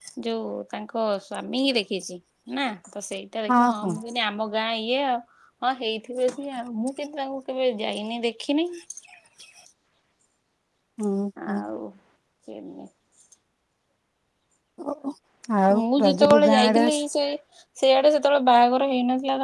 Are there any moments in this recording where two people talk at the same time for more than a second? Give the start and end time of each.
15.8-17.0

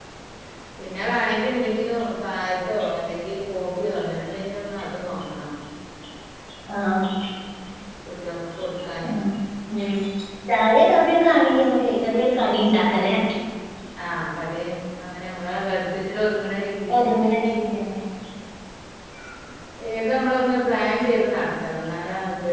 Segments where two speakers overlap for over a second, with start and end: none

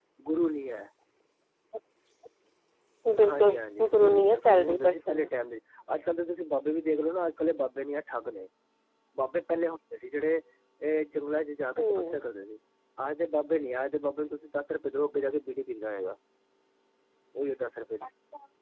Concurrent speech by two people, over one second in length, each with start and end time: 3.3-5.3

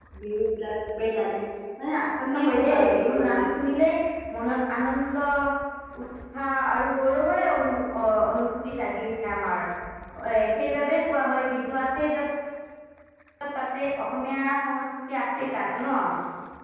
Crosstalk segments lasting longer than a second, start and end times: 2.2-3.4

